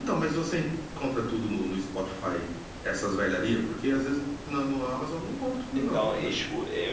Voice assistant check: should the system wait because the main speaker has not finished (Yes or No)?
No